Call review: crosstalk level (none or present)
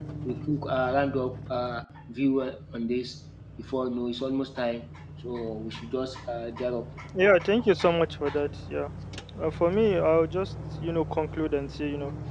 none